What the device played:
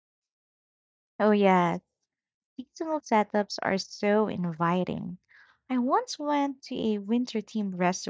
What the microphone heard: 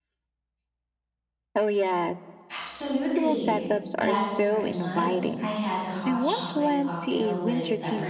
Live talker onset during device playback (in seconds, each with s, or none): 2.5 s